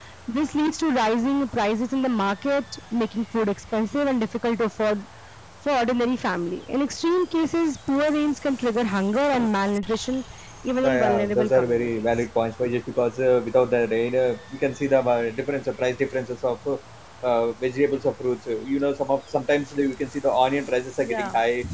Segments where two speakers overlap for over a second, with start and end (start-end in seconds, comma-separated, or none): 10.8-12.1